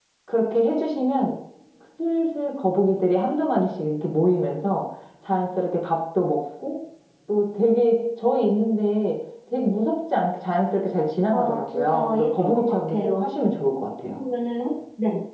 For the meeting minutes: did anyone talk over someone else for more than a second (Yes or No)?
Yes